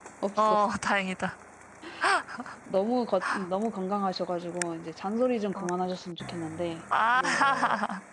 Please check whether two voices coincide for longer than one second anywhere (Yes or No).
No